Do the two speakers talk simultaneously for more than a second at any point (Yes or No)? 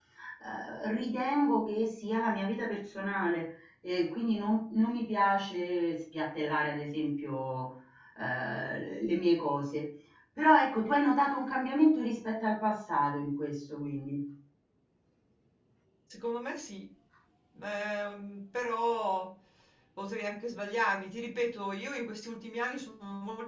No